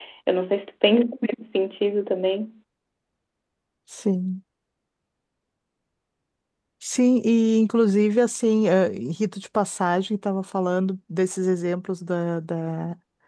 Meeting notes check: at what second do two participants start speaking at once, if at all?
none

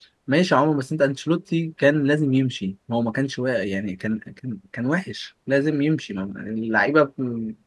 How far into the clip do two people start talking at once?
none

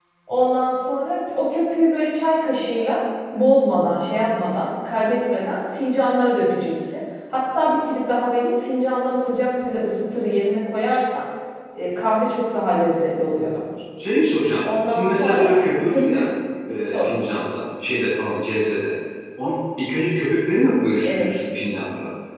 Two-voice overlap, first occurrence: 15 s

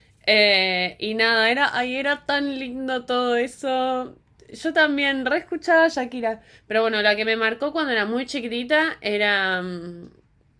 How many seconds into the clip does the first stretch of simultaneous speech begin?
none

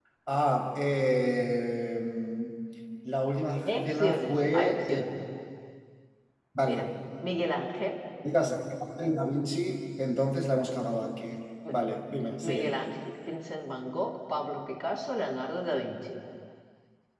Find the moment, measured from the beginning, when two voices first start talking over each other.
4 s

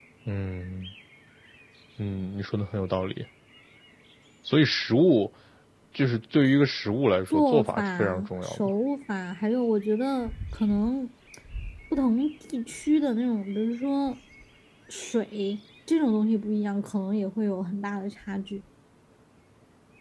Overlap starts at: 7 s

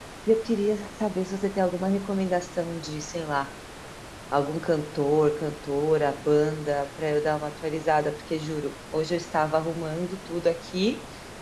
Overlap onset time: none

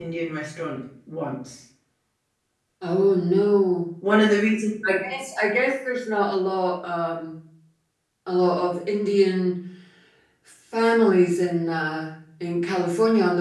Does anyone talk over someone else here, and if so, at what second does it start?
none

